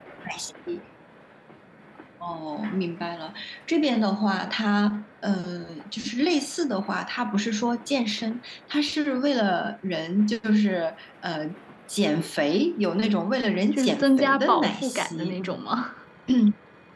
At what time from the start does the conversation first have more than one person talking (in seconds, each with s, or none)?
13.7 s